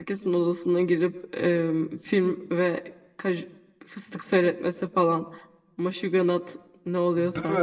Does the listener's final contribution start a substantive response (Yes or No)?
Yes